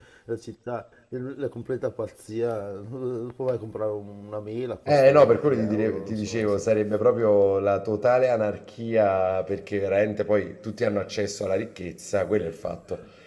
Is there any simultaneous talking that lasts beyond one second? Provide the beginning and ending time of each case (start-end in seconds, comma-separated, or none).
4.9-6.7